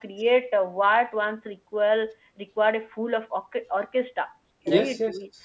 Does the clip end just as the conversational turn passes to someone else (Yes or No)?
No